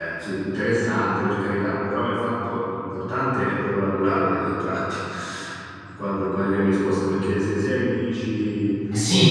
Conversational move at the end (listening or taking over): taking over